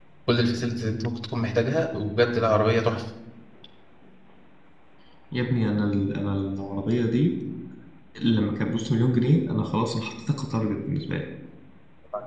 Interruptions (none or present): none